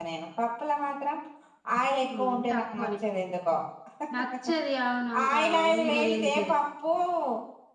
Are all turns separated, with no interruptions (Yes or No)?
No